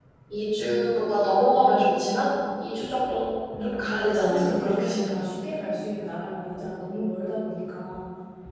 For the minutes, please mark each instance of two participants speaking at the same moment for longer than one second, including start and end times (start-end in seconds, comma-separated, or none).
3.6-5.2